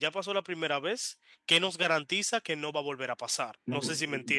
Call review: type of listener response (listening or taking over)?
taking over